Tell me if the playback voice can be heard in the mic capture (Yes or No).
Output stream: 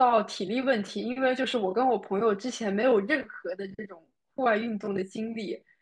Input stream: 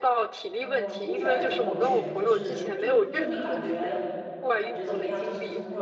Yes